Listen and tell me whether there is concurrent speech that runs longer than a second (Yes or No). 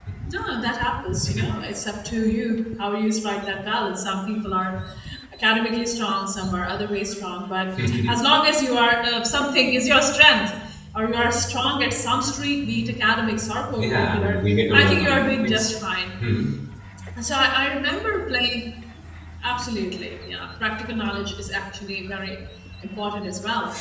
Yes